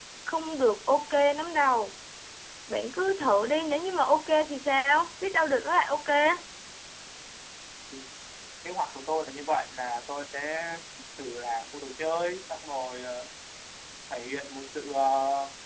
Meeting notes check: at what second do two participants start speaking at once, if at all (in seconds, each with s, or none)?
none